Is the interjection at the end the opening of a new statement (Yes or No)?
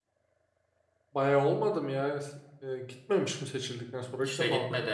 Yes